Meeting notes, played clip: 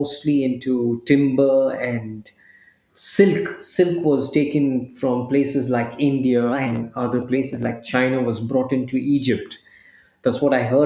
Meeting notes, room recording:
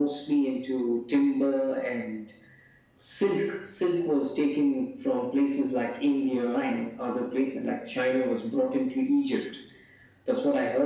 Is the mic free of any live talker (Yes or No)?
Yes